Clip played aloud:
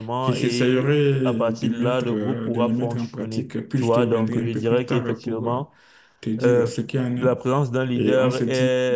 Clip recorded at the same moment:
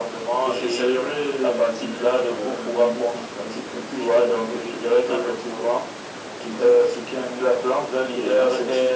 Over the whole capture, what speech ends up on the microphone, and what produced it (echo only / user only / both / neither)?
echo only